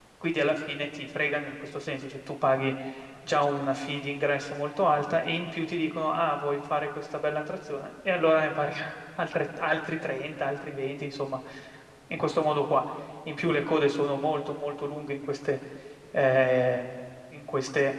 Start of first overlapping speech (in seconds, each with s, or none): none